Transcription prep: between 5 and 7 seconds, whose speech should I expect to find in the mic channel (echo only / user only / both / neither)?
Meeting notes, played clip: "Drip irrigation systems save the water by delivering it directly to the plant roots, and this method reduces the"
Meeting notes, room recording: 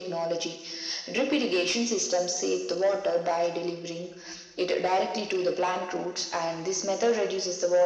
echo only